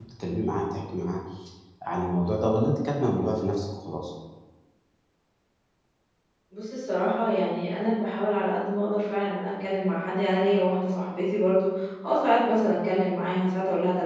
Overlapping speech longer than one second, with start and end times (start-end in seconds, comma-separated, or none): none